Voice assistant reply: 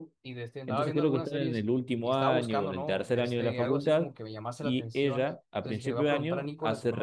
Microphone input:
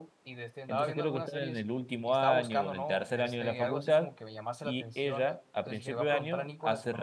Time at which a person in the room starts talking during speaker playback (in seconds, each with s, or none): none